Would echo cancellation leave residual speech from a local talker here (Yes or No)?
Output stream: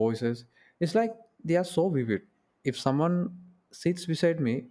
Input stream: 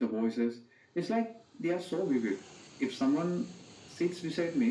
No